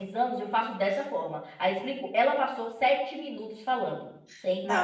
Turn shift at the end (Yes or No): Yes